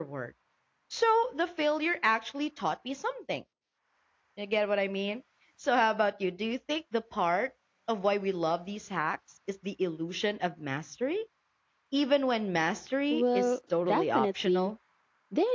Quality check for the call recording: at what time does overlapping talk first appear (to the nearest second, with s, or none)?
13 s